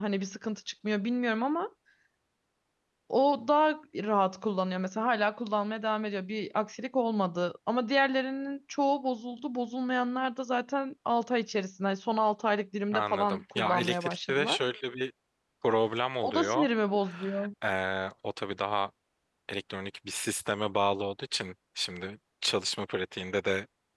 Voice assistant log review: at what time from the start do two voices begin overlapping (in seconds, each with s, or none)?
12.9 s